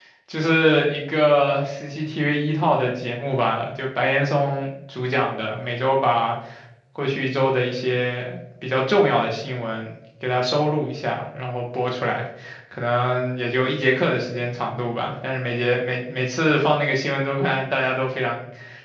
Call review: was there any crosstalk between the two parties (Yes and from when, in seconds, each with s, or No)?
No